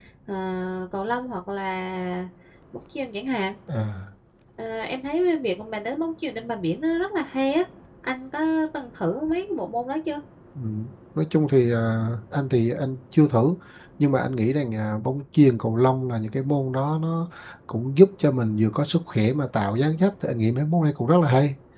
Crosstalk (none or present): none